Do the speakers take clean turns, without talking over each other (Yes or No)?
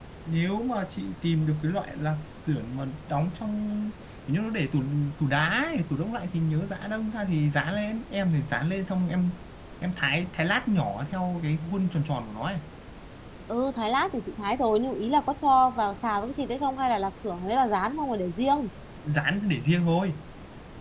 Yes